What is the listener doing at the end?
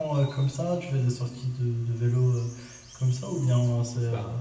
listening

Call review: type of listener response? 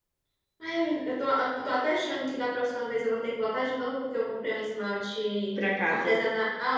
listening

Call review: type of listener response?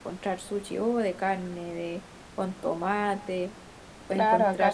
taking over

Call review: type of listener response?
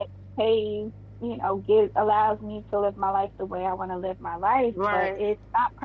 listening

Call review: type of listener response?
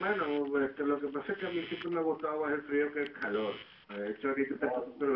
listening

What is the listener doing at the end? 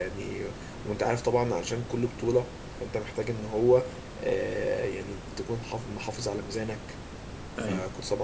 listening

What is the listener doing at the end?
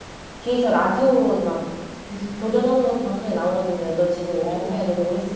listening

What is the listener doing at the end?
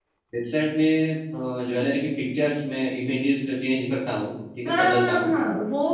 taking over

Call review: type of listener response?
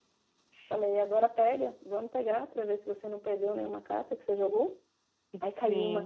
listening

